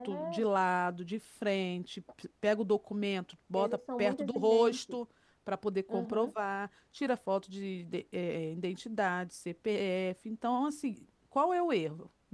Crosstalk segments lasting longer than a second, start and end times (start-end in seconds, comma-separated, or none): 3.5-4.8